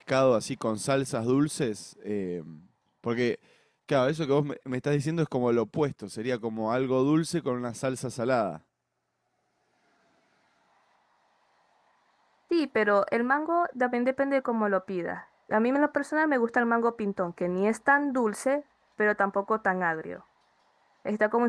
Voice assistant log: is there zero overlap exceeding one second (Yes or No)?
Yes